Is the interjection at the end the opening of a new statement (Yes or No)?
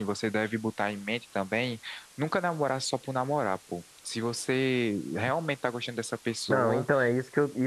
Yes